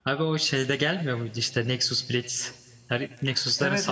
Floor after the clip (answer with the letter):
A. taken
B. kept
A